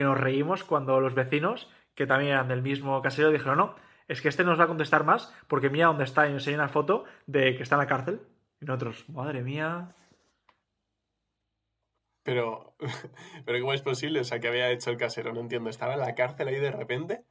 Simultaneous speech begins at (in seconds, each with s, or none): none